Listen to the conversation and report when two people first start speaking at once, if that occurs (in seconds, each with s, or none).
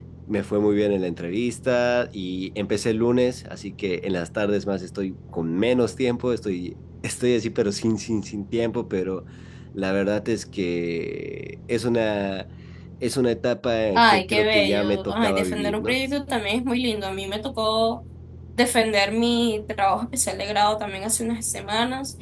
13.9 s